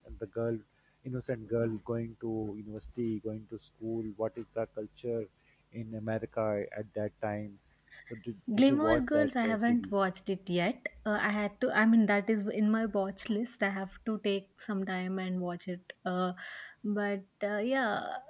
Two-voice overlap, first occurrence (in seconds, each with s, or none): 8.6 s